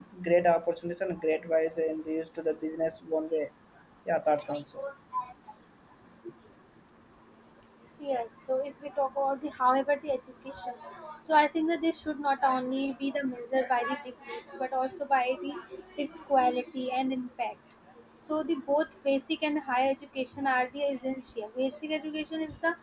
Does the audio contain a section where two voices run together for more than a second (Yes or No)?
No